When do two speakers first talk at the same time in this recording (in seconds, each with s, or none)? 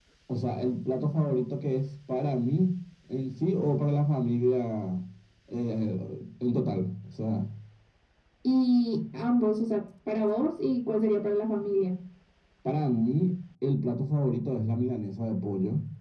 none